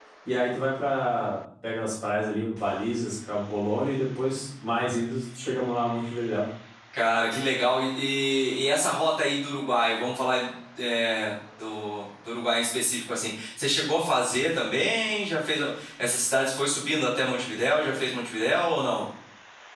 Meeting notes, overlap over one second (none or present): none